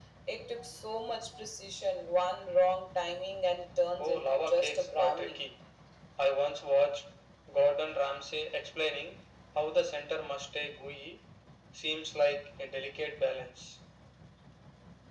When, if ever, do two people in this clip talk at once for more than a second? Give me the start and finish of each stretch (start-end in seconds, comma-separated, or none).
4.0-5.4